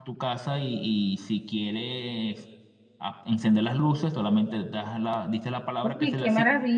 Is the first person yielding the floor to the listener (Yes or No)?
Yes